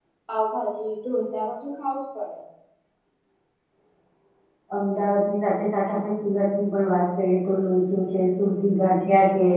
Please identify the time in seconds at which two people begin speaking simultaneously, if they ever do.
none

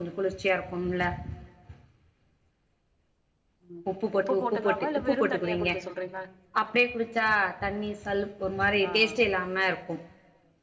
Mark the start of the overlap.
4.1 s

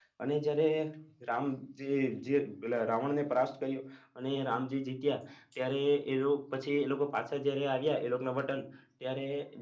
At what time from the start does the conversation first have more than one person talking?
none

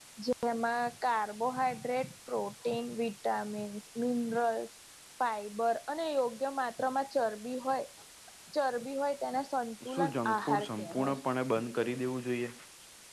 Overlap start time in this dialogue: 9.8 s

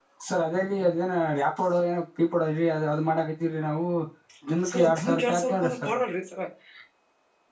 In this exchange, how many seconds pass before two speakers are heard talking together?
4.7 s

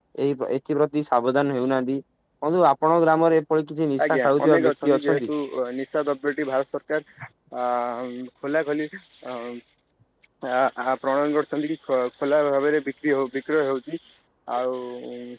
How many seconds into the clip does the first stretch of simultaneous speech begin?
4.0 s

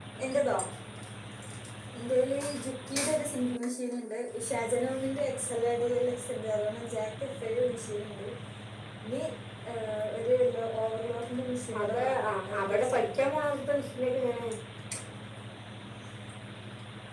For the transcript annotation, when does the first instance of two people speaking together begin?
11.7 s

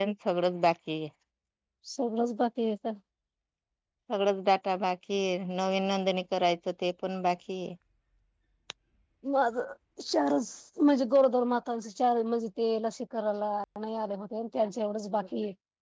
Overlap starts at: none

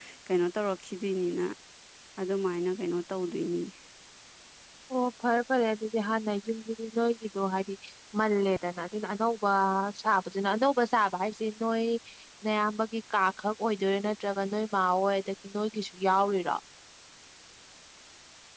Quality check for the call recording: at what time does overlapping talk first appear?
none

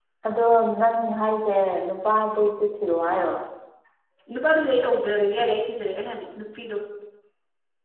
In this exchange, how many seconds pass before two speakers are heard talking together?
none

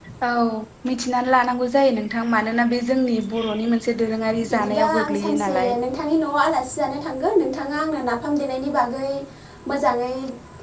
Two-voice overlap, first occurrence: 4.2 s

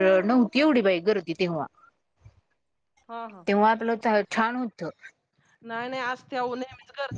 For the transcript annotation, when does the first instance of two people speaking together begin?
none

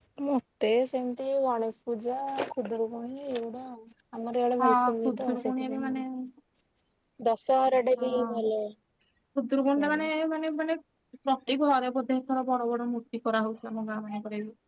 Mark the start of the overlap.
4.6 s

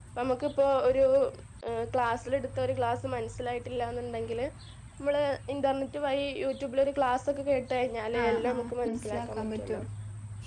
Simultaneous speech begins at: 8.1 s

